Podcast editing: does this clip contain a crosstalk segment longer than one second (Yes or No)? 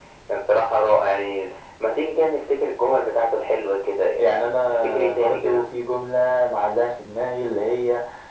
Yes